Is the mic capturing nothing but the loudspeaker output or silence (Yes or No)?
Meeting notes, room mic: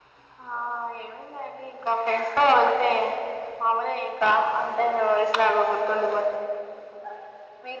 Yes